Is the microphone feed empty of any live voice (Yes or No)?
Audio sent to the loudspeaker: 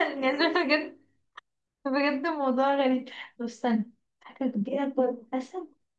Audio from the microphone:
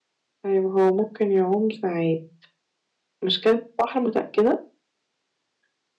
No